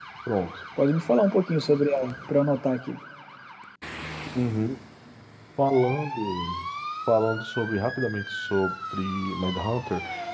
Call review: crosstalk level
none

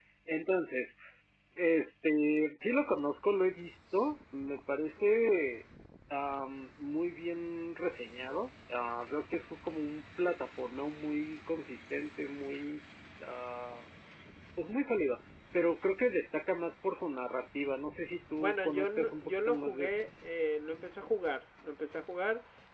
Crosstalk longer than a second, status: present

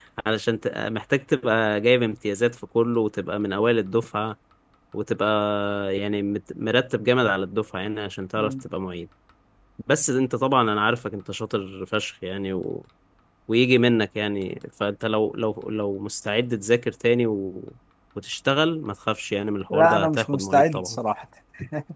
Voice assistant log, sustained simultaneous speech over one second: present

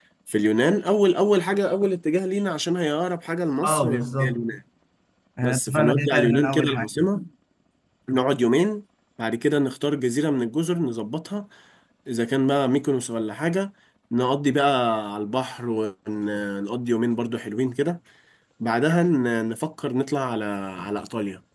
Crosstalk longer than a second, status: present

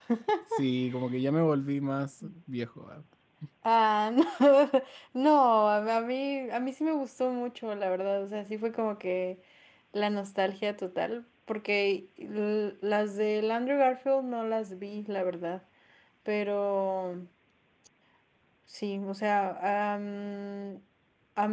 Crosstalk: none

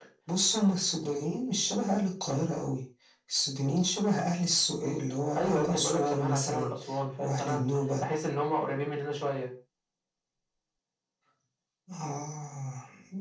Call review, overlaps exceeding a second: present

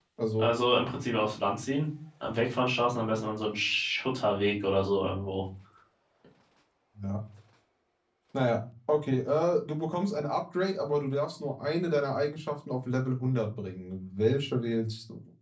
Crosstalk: none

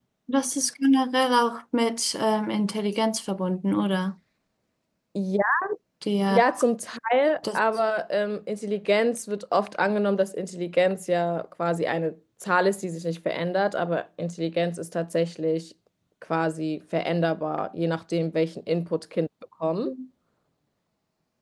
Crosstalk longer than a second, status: none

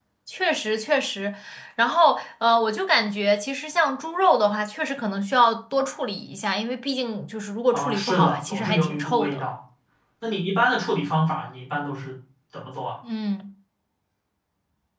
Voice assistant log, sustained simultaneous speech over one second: present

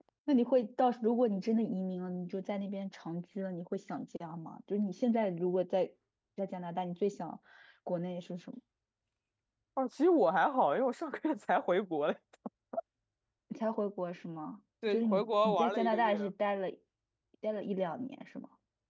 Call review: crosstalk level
present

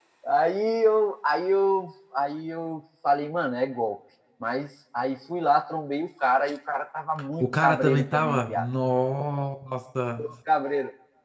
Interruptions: present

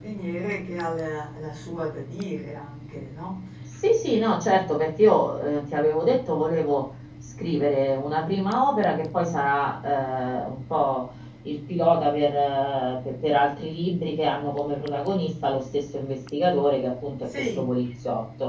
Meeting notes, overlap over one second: none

